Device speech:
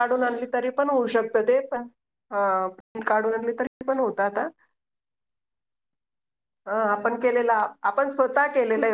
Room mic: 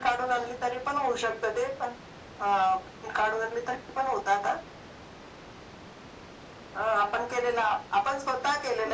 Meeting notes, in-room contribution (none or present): none